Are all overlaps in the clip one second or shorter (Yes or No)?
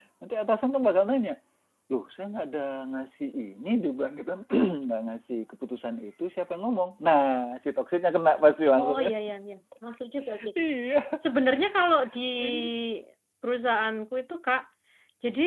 Yes